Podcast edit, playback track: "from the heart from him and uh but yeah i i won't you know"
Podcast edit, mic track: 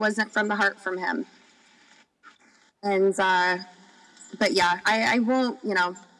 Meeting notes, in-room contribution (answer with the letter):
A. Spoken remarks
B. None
B